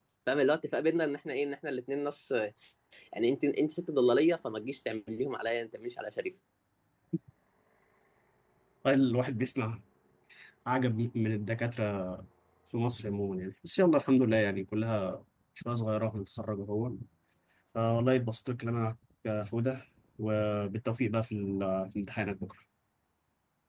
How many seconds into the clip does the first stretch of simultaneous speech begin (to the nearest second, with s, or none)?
none